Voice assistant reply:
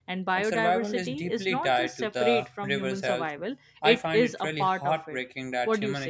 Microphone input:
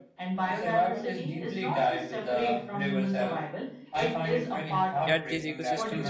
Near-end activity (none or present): present